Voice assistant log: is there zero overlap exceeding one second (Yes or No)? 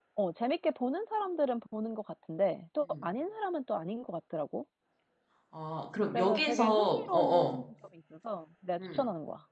No